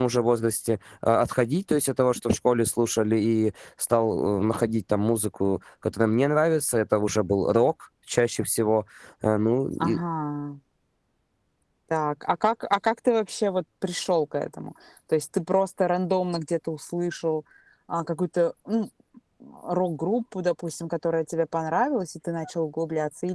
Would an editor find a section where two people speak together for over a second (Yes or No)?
No